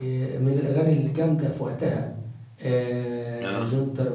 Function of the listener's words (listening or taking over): listening